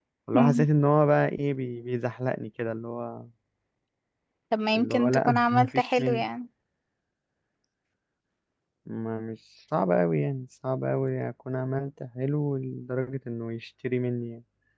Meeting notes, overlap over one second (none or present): present